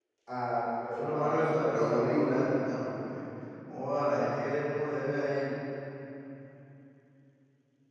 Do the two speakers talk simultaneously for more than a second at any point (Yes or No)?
Yes